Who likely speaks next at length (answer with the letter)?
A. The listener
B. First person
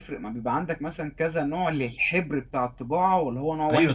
A